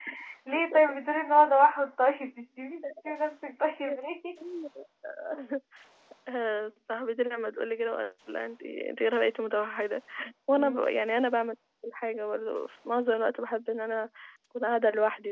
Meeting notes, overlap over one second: none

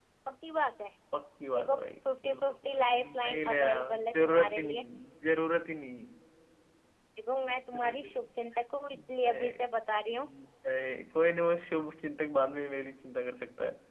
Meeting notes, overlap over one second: present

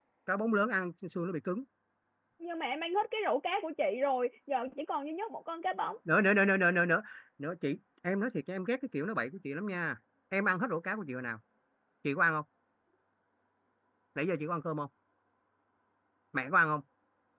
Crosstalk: none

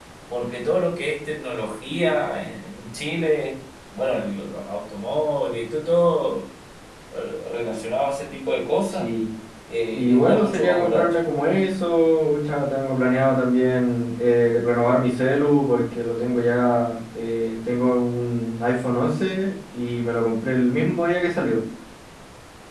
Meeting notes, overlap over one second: present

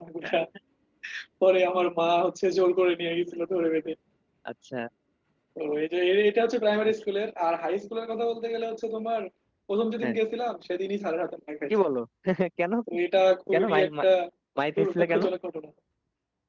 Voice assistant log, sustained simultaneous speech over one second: none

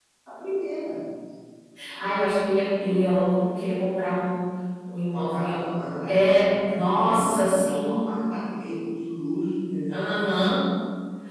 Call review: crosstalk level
present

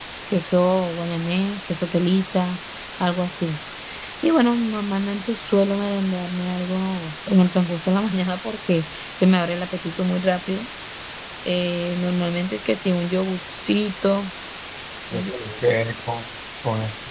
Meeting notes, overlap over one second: none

